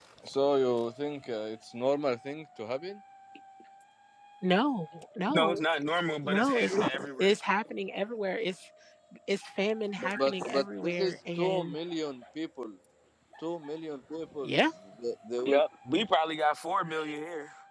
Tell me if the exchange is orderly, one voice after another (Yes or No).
No